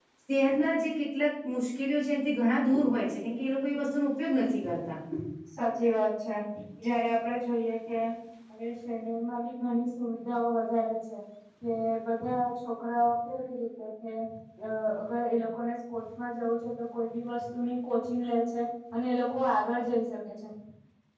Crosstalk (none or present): none